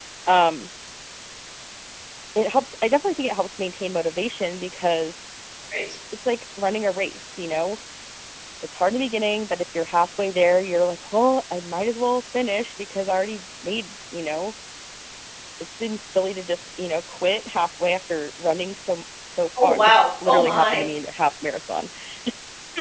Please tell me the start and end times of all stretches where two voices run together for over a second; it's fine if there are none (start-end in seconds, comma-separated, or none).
19.6-20.8